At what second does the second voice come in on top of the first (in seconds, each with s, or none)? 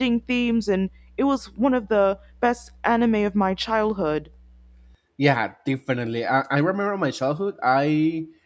none